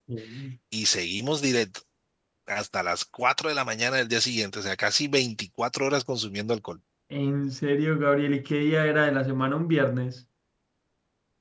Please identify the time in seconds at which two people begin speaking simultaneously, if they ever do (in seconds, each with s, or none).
none